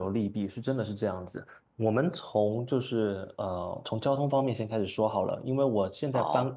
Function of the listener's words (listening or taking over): listening